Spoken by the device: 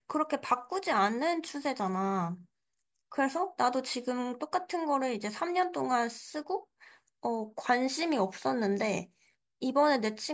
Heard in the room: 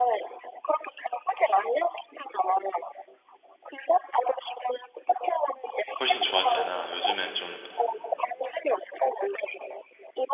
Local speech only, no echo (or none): 훨씬 좋았잖아. 요즘에 좀